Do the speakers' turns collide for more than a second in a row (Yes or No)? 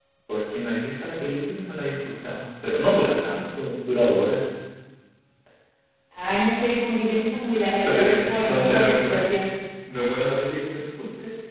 Yes